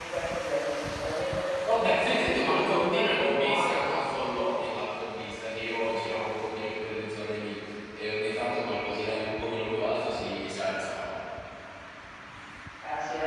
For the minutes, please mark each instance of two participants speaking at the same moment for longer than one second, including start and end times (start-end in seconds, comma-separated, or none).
2.1-3.8